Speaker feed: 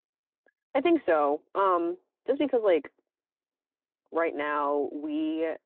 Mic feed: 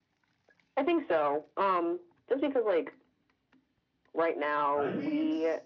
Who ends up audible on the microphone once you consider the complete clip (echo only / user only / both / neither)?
both